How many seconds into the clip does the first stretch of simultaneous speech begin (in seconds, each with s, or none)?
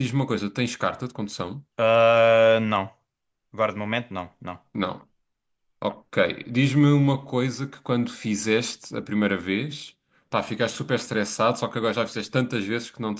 none